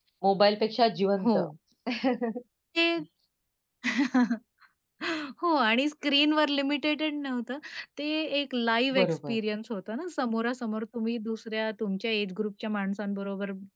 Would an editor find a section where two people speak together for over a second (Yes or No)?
No